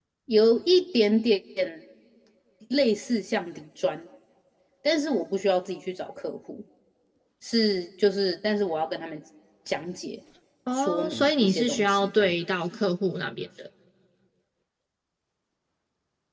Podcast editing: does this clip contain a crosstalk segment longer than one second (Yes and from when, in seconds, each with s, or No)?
Yes, from 10.7 s